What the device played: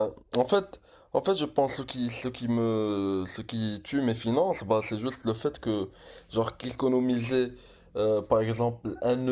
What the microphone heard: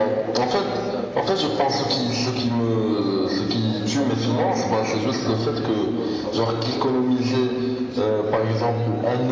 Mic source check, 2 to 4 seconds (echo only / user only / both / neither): both